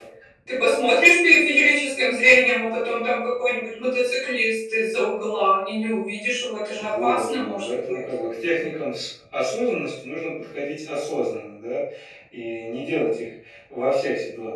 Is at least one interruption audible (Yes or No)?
Yes